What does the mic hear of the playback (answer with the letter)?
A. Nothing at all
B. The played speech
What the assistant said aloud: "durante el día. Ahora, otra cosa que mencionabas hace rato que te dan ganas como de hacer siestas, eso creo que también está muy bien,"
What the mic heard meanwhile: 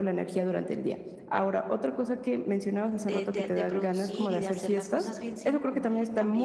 B